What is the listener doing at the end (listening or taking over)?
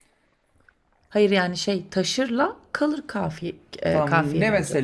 taking over